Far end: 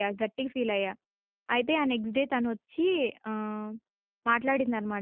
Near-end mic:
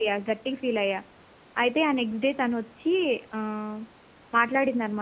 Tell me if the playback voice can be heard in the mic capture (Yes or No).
Yes